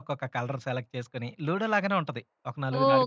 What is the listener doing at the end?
taking over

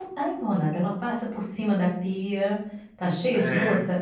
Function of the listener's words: listening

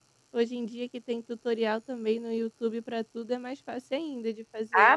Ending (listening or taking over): taking over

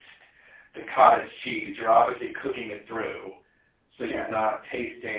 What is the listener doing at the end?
listening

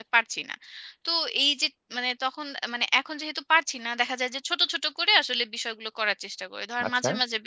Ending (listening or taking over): listening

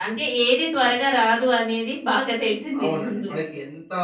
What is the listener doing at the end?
taking over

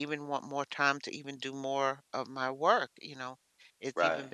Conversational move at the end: listening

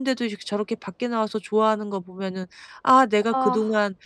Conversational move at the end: listening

